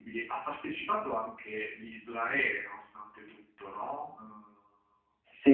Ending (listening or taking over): taking over